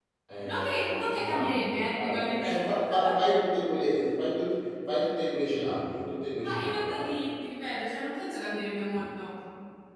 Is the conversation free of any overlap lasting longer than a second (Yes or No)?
No